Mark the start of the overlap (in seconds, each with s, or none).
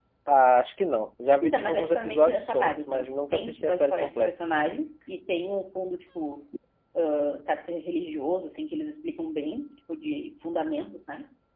1.4 s